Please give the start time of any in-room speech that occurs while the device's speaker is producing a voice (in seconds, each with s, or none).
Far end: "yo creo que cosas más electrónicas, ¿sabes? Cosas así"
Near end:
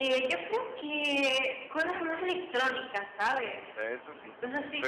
3.7 s